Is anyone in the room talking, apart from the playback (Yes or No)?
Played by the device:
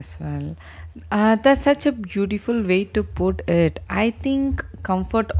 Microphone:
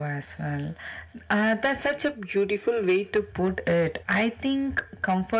No